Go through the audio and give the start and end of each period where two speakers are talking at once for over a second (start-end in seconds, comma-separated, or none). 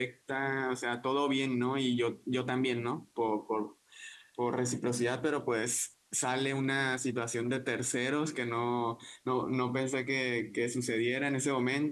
none